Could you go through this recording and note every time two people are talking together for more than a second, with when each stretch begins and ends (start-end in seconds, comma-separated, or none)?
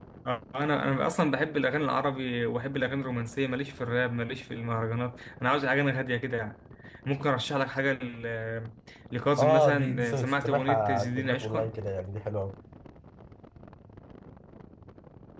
9.4-11.7